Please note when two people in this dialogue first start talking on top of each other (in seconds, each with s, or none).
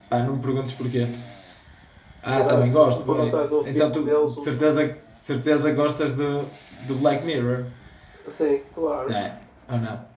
2.3 s